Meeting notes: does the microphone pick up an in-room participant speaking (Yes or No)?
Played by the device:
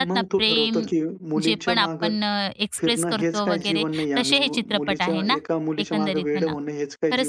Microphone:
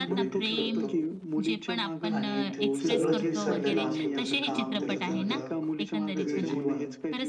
Yes